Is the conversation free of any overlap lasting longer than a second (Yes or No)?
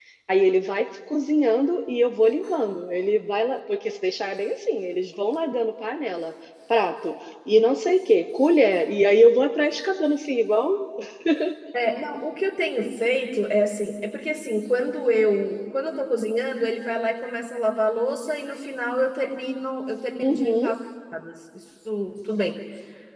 Yes